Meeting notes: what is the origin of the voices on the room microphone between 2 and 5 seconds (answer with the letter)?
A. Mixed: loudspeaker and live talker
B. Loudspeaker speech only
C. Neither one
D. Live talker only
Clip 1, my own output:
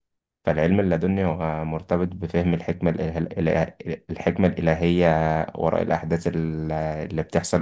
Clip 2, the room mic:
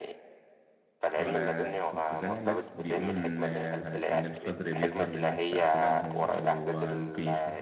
A